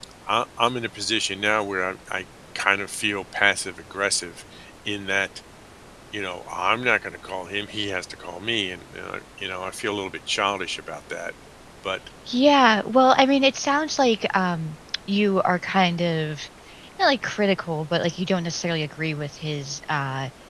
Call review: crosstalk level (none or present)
none